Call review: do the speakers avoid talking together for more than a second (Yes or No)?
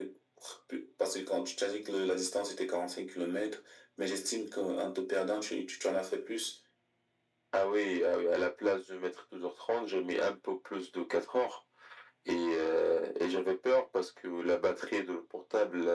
Yes